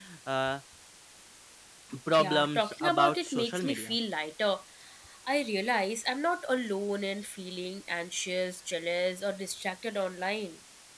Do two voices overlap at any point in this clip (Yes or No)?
Yes